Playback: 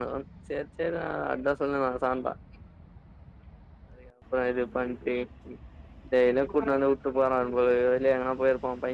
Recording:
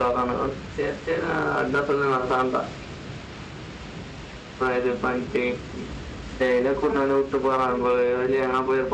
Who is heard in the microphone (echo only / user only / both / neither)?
echo only